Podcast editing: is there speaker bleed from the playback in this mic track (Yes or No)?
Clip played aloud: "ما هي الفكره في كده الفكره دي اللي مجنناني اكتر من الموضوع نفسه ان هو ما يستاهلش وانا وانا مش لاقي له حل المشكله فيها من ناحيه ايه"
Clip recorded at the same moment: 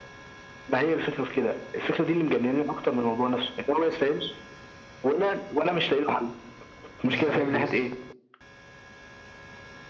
Yes